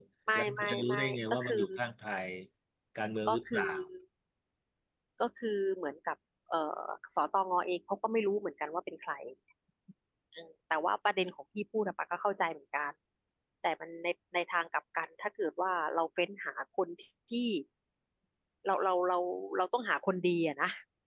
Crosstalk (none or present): present